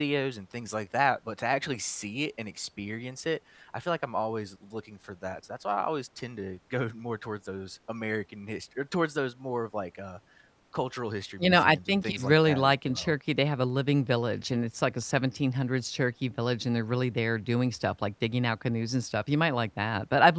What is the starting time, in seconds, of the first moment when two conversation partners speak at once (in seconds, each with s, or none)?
11.4 s